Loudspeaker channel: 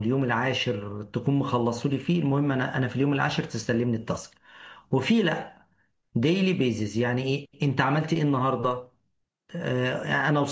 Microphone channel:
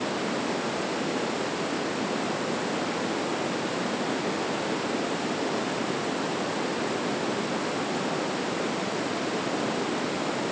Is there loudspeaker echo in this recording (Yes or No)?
No